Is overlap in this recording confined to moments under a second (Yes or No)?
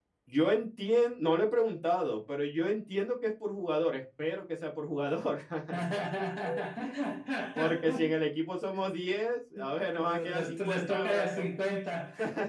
No